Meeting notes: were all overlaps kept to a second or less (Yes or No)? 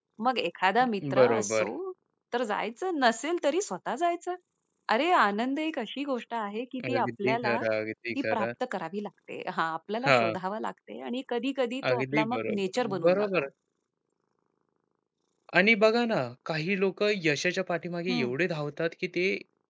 No